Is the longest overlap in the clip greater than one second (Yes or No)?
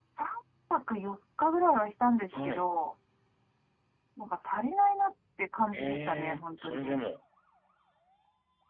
Yes